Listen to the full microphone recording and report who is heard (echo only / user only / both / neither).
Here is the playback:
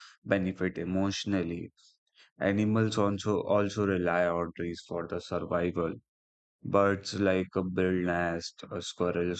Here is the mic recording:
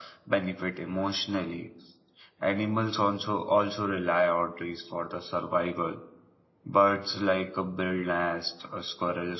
echo only